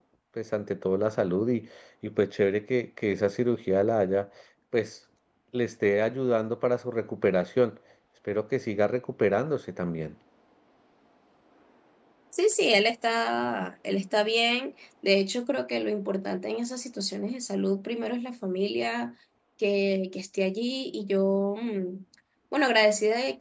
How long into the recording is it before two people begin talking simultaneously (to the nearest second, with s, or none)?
none